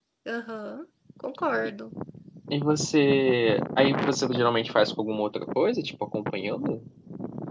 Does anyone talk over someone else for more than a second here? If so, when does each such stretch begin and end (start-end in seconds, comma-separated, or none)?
none